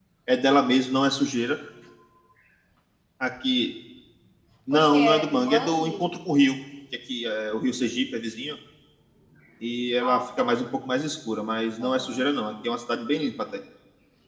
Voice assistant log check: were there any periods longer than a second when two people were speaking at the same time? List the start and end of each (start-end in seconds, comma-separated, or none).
4.7-6.1